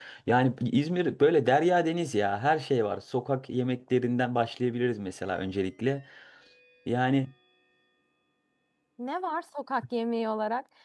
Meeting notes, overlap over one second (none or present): none